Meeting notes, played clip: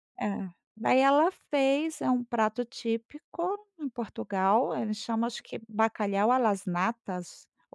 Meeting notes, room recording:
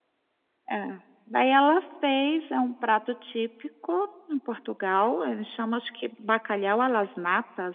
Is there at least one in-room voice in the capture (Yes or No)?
No